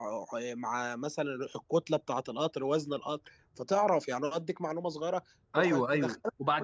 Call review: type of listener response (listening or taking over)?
taking over